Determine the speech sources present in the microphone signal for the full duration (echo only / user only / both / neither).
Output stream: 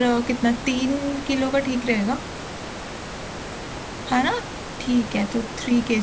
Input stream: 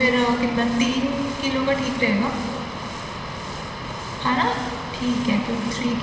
echo only